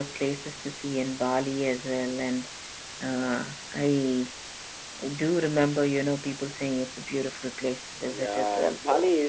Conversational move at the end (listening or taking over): taking over